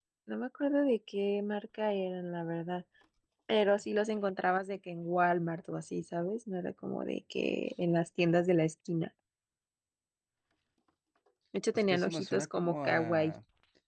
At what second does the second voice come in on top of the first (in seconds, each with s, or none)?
11.7 s